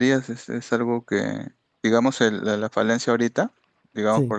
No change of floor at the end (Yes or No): Yes